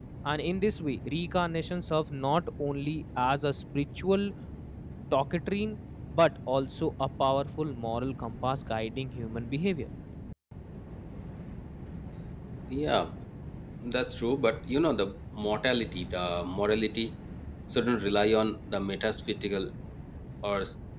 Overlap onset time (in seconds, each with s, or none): none